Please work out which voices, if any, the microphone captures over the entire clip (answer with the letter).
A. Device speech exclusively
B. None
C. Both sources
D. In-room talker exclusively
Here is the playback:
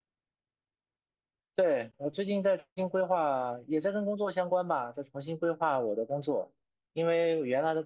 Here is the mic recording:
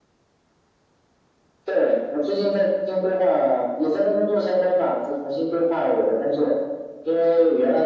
A